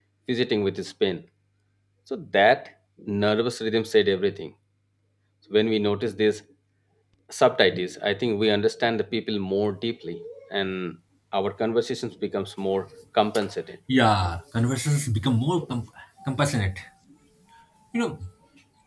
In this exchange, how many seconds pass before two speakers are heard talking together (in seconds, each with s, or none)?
none